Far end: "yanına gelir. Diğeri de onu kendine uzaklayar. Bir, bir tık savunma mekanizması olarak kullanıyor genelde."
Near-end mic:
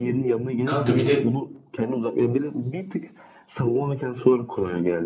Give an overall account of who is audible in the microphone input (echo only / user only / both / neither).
both